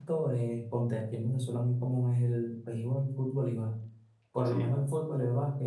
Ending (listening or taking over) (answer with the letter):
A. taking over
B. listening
B